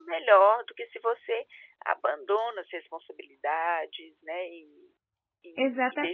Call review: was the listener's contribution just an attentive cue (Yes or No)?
No